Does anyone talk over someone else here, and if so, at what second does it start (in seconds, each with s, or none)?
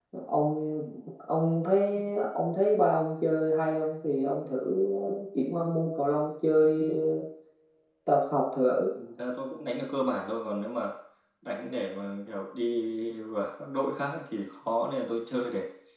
none